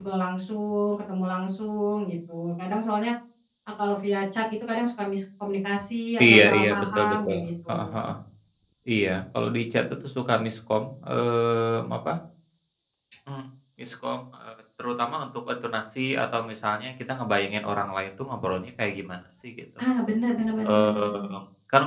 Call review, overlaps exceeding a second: present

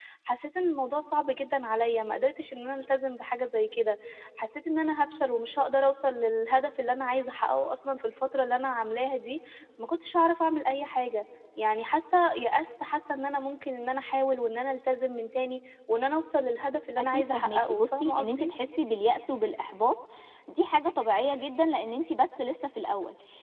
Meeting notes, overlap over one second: present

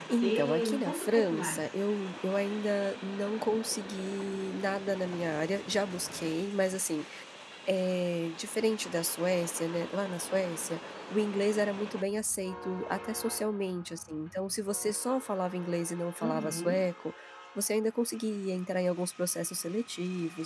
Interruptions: present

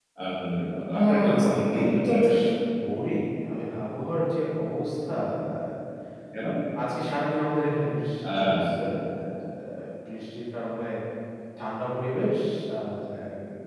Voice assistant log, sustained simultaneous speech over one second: present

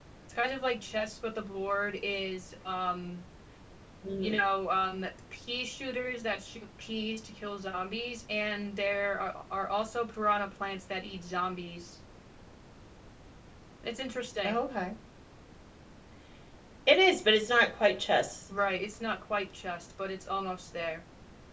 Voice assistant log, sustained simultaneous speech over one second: none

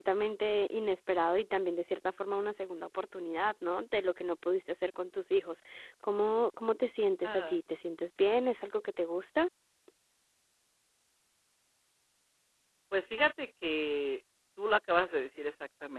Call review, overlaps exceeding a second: none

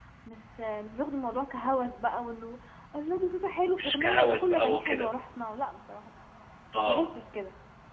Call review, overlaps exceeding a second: present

